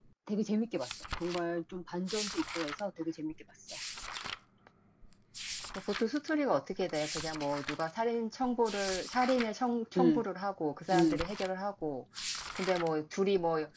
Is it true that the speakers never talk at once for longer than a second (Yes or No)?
Yes